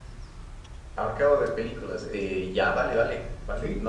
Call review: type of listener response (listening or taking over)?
listening